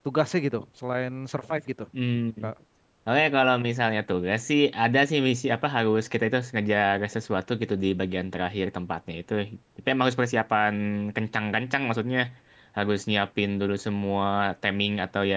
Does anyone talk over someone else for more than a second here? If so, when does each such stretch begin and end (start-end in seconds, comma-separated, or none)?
none